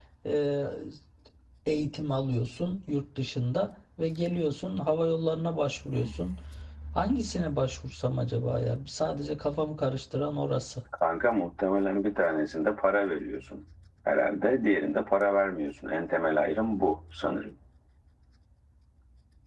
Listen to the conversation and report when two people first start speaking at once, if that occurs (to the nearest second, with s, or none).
none